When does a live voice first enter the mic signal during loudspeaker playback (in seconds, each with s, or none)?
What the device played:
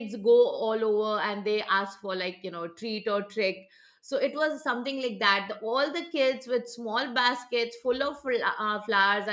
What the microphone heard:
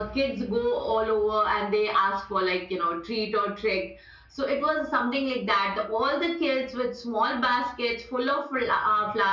none